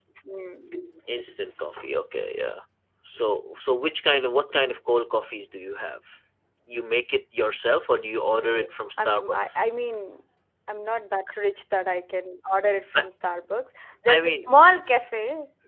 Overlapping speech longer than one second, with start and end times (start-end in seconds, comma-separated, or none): 8.2-9.7